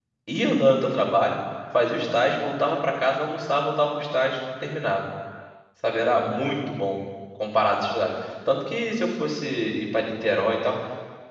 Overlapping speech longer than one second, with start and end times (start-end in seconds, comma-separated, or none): none